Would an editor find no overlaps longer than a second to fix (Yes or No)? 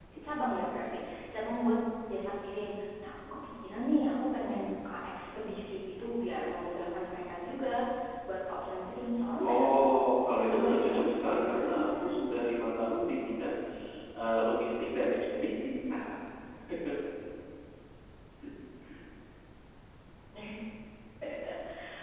No